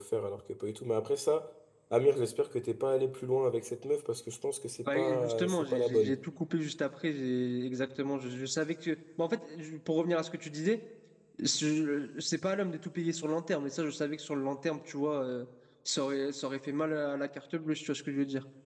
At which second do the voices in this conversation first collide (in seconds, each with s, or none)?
4.8 s